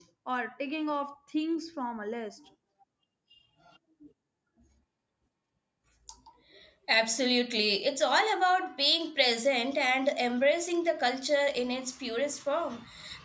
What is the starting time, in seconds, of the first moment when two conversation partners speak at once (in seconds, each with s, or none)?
none